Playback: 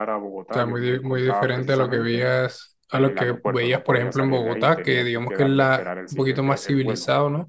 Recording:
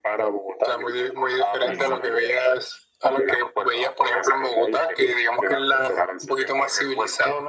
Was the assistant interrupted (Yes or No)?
Yes